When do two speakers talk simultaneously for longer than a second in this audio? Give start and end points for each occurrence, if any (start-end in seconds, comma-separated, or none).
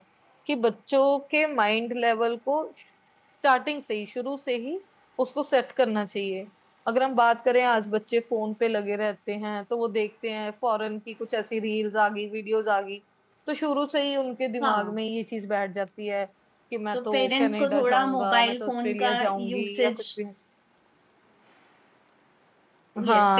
16.9-19.9